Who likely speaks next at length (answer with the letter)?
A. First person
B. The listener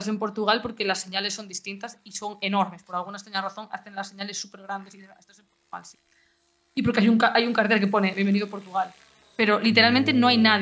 A